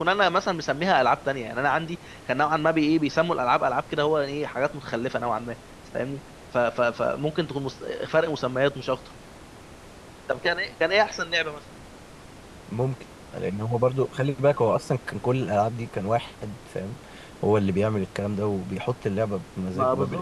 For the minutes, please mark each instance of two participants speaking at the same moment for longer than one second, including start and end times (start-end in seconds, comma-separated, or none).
none